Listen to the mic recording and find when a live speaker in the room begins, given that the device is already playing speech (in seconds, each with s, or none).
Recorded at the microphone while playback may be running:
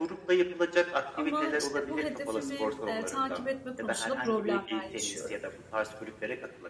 1.1 s